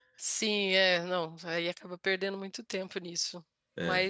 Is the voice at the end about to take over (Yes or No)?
No